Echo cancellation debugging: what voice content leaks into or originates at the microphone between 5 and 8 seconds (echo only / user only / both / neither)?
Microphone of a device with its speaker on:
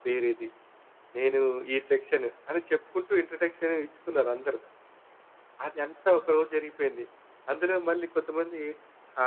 echo only